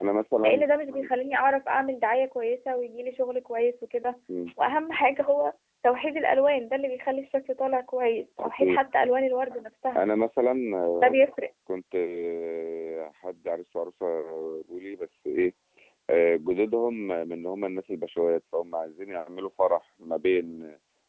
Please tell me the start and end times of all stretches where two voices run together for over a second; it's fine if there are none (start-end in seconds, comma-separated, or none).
none